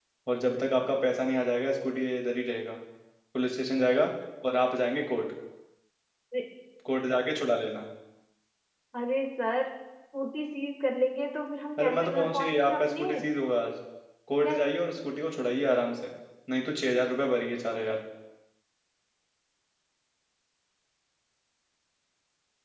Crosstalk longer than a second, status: present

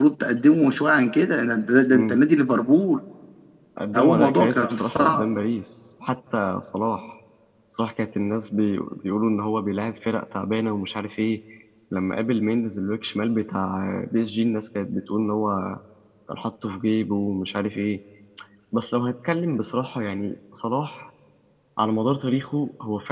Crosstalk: present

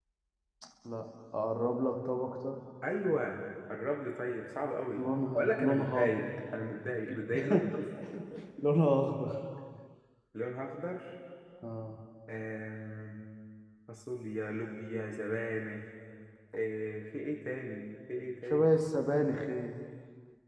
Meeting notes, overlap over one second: present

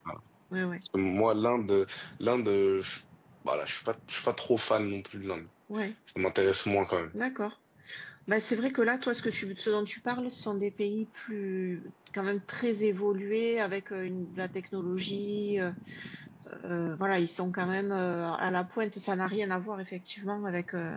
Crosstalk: none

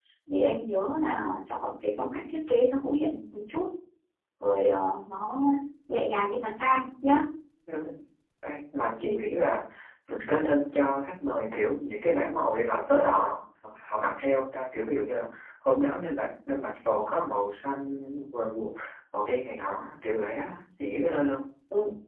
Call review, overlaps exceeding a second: none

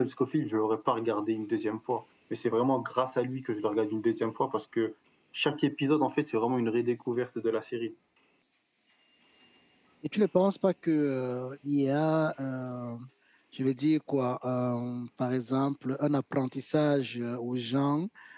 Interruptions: none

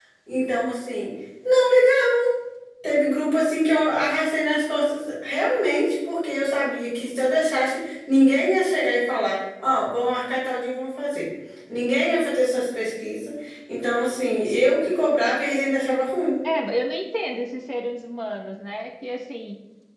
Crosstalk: none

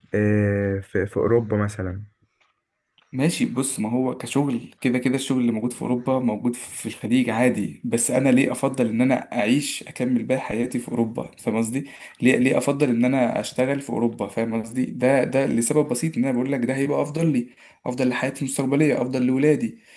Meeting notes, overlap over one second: none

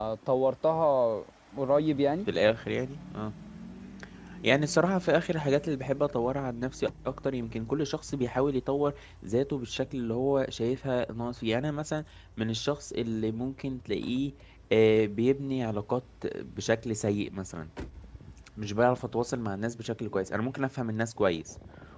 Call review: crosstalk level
none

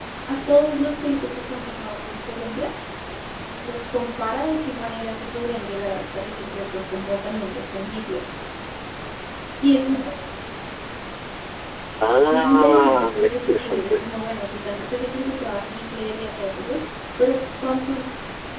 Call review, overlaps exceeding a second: present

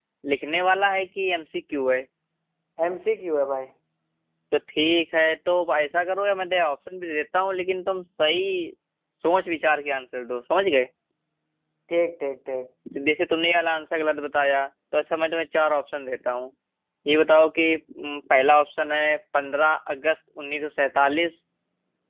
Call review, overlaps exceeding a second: none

